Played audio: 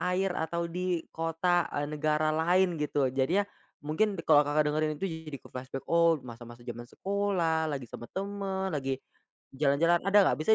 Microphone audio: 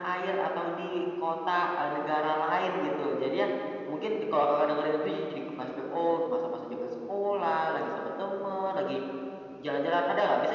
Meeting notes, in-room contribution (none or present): none